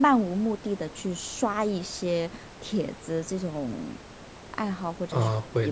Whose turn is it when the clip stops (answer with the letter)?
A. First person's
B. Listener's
B